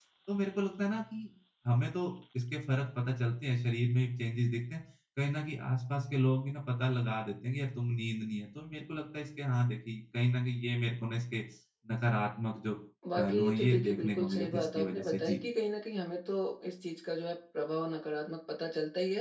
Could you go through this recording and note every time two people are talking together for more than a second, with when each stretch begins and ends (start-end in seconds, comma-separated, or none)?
13.2-15.4